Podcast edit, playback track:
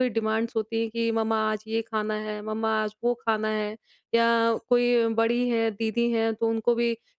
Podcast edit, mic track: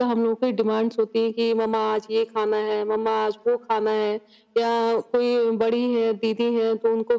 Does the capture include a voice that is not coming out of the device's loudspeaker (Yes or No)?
No